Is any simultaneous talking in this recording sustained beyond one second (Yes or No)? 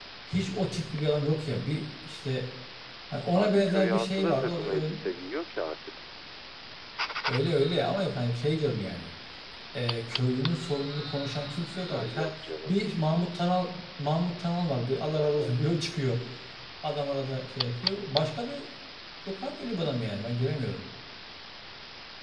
Yes